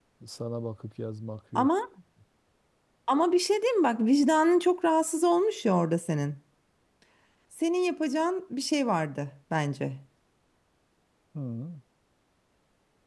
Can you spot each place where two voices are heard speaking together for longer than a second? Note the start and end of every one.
none

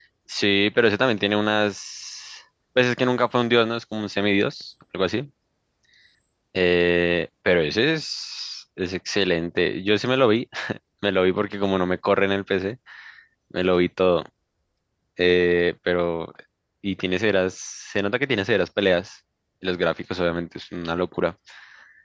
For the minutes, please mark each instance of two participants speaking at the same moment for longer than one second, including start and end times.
none

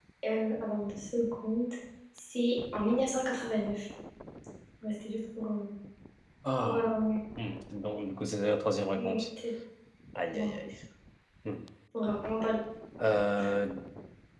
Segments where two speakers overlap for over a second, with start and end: none

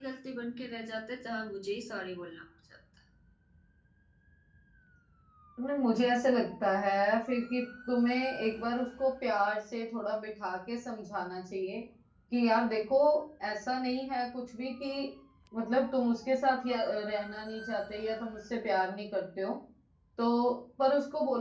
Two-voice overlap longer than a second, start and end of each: none

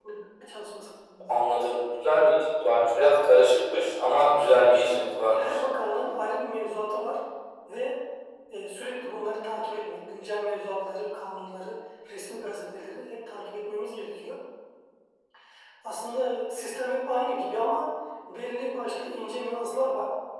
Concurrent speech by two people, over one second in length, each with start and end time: 4.3-5.6

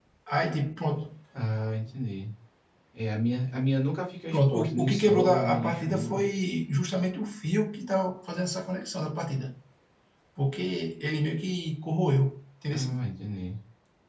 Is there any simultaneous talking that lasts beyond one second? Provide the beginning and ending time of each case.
4.3-6.2

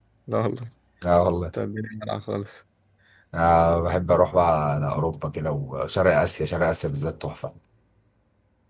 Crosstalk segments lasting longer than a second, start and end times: none

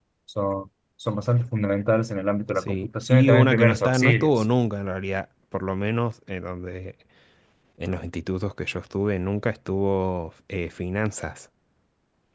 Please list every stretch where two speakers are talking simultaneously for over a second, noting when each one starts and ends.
2.6-4.3

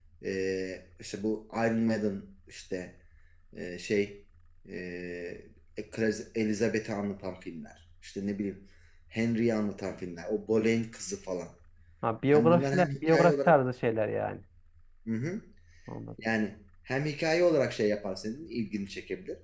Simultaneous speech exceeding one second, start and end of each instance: 12.3-13.6

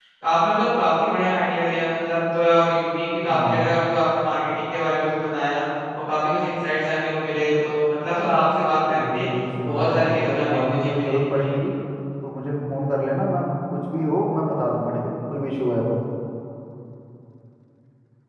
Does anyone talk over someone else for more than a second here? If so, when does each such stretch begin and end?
9.6-11.6

